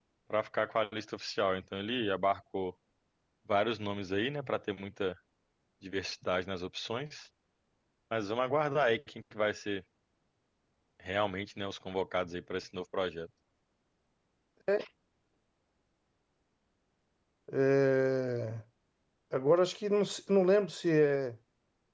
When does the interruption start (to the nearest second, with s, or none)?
none